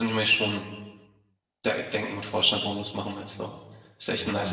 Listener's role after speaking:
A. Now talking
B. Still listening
A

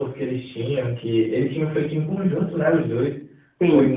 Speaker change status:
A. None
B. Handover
A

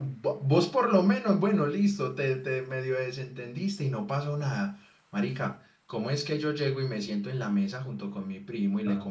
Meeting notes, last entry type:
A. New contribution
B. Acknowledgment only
B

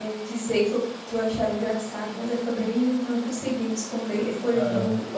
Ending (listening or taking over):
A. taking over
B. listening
B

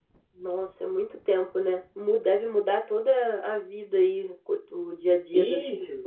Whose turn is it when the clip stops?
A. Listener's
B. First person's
A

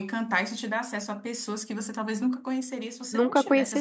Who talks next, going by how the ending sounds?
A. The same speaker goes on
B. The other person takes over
B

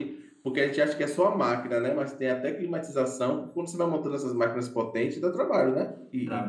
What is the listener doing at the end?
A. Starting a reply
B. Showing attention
A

